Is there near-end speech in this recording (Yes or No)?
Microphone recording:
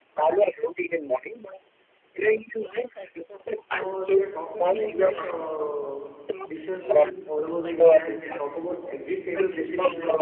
Yes